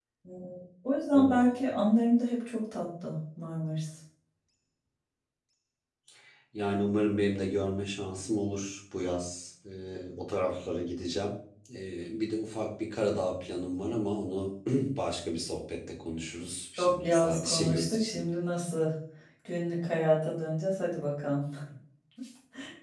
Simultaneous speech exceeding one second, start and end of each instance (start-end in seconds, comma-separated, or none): 16.8-18.2